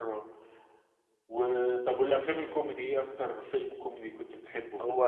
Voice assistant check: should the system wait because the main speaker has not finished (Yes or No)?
No